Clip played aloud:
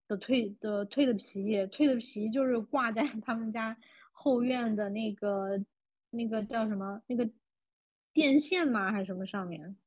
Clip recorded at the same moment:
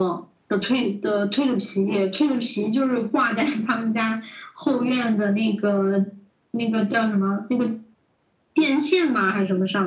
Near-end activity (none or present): none